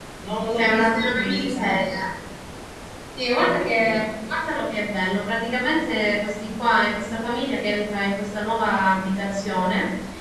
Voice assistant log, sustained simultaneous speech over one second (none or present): present